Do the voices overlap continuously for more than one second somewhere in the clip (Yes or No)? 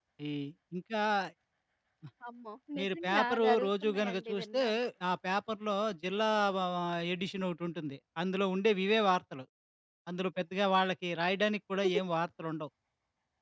Yes